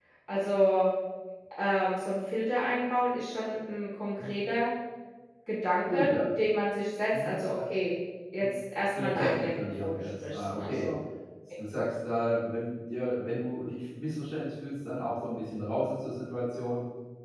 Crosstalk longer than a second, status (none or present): present